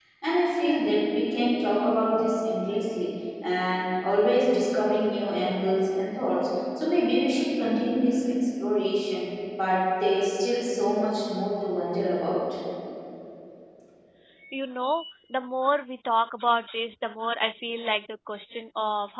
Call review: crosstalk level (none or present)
none